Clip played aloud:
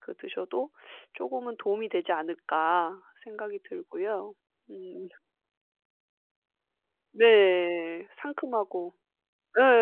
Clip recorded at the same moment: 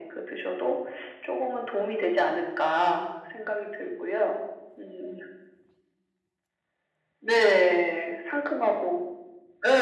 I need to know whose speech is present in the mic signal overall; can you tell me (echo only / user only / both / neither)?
echo only